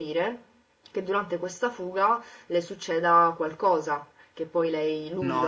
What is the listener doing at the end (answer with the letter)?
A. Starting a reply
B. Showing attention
A